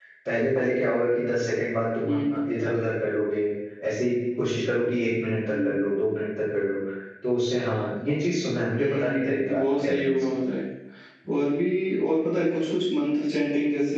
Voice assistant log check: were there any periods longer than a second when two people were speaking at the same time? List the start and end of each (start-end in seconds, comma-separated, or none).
8.8-10.3